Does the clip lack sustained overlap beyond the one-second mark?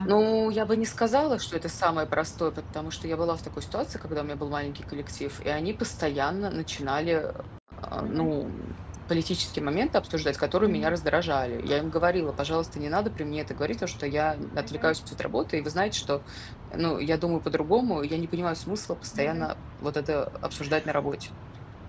Yes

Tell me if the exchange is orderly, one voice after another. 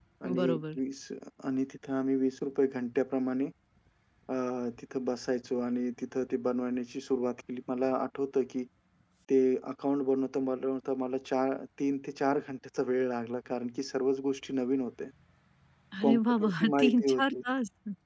No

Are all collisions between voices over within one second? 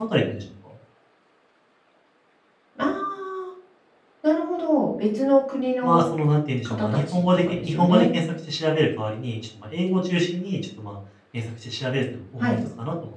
No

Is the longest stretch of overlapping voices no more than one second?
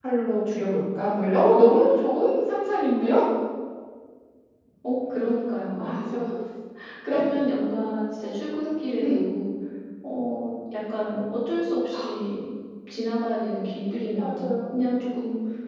Yes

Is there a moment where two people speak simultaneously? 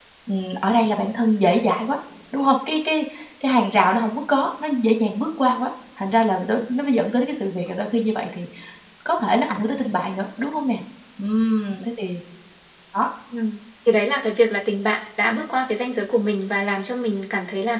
No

